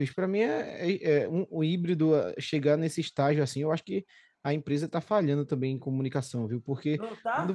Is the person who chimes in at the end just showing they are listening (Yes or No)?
Yes